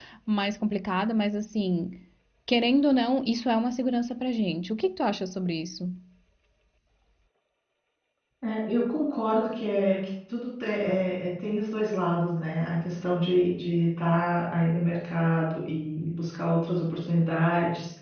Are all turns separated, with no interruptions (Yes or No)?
Yes